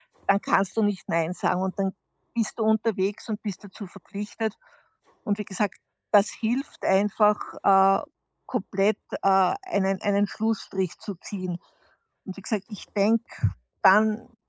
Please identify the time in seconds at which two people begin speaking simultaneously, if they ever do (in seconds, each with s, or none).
none